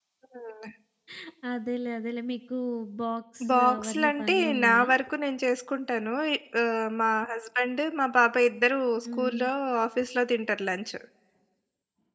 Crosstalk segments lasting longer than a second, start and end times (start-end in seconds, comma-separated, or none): 3.5-4.9